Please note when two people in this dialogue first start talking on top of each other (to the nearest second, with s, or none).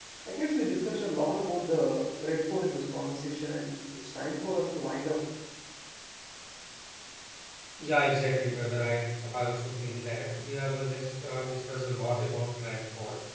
none